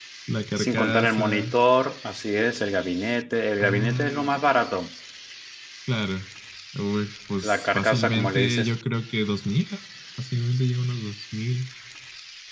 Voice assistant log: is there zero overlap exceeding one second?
No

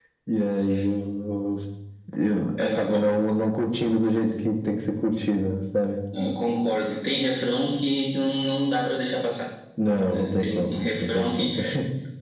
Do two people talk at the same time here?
Yes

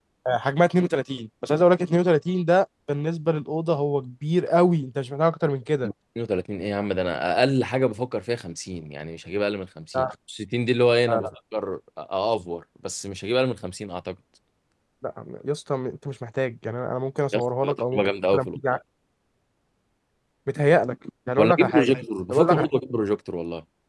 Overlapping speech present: Yes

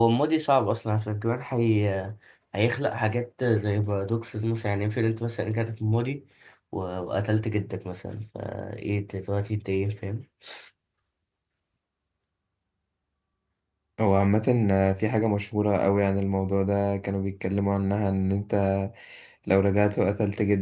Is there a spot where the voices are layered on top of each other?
No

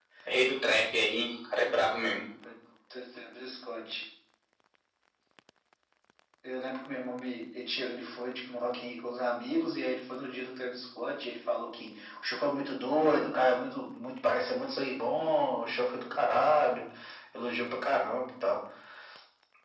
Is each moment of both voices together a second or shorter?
Yes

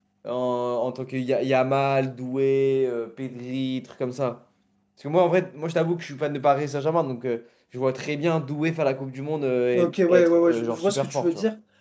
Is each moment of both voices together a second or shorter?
No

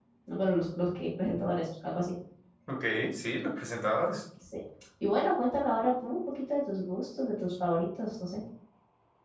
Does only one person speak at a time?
Yes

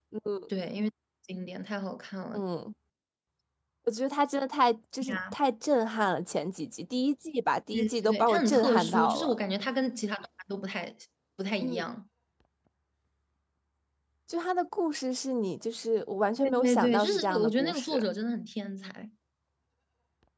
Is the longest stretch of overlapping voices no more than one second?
No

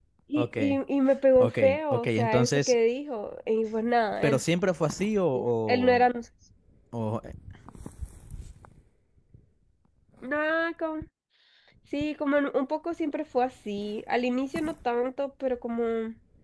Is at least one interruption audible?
Yes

